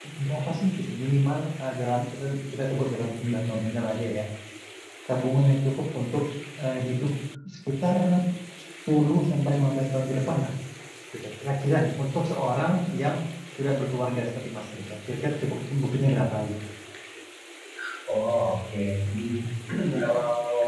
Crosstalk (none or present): none